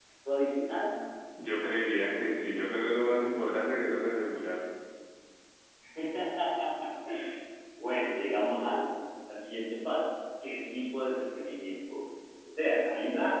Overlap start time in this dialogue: none

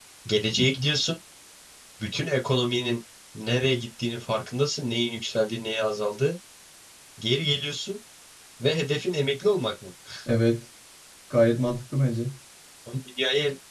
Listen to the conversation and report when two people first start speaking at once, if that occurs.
none

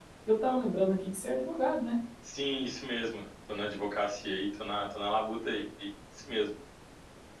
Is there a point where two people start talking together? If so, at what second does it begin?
none

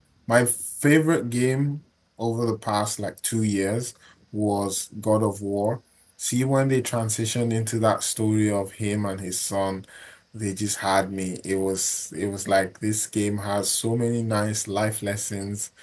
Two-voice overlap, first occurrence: none

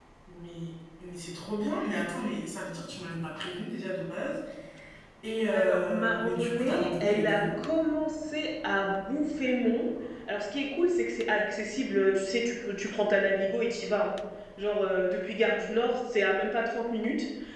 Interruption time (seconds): 5.5 s

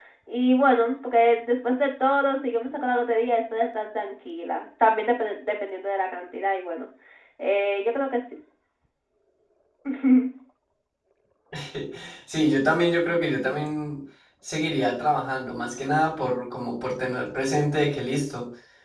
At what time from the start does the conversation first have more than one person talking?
none

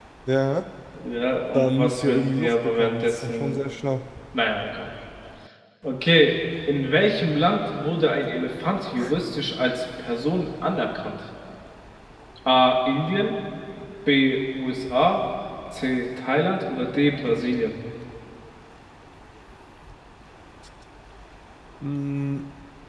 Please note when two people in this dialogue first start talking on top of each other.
1.5 s

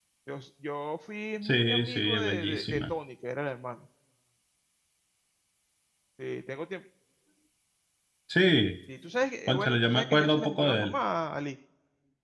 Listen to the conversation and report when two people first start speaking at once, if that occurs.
1.4 s

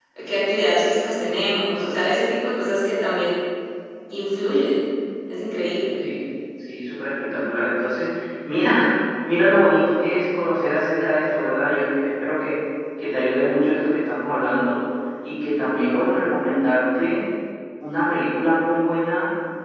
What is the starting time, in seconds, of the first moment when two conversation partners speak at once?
none

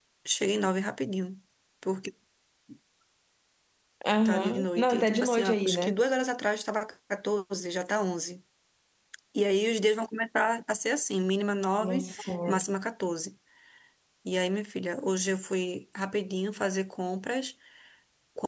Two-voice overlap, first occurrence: 4.2 s

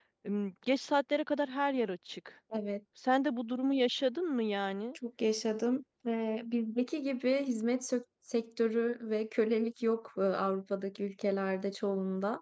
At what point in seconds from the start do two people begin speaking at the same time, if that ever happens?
none

